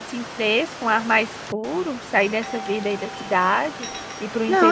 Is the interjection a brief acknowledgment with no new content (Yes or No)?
No